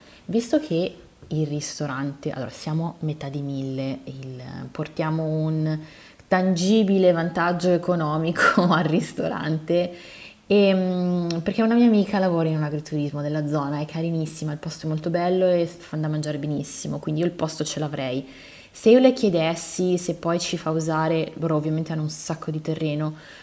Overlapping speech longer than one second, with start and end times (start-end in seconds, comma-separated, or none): none